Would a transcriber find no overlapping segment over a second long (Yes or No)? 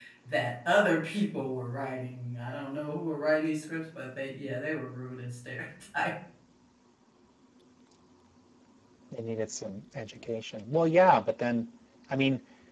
Yes